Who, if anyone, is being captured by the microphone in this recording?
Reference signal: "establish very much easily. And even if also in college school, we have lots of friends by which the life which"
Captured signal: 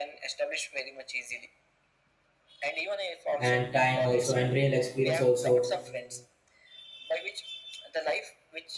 both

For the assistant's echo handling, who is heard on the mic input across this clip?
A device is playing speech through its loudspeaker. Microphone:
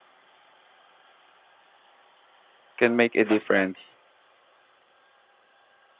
user only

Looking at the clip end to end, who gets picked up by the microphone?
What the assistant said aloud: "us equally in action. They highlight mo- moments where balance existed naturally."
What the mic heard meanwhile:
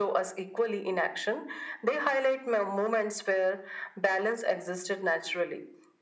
echo only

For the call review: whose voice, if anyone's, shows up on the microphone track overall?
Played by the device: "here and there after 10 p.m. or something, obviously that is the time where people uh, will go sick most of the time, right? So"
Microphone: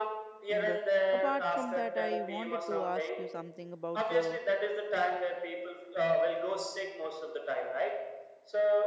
both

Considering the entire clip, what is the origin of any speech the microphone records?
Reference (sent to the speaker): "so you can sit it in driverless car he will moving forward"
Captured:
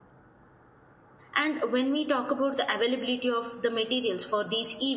user only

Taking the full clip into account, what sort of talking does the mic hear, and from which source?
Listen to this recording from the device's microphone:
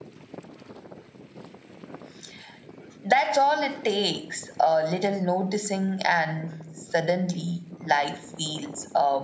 echo only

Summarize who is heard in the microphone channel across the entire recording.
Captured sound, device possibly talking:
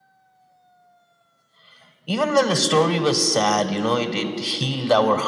echo only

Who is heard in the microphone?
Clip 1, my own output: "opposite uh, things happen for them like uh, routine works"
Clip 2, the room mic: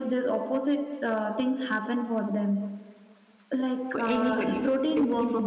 both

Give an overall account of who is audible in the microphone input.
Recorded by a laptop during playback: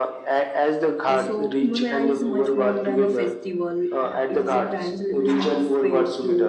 both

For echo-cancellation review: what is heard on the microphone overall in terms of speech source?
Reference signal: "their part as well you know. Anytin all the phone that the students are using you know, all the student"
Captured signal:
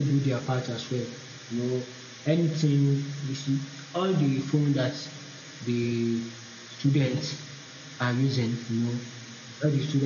echo only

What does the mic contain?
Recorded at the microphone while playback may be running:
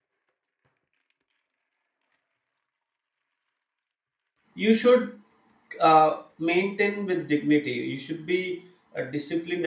user only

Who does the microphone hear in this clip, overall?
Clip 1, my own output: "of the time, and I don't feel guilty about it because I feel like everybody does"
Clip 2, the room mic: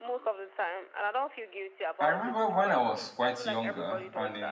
both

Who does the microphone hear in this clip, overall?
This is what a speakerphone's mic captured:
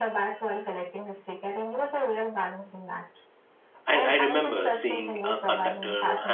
both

